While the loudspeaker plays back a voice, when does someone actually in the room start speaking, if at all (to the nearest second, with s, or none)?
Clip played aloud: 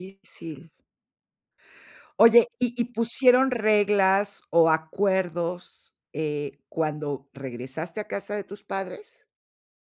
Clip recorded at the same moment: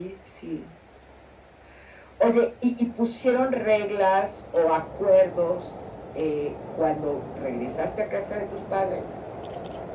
none